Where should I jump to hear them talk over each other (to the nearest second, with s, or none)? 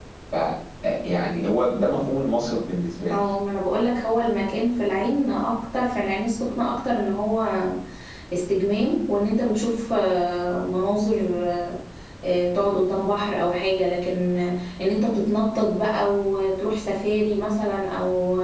none